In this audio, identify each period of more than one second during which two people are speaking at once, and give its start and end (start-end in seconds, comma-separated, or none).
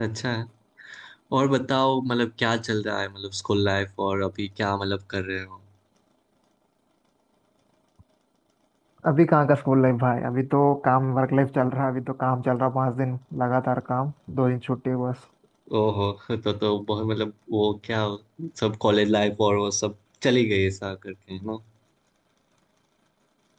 none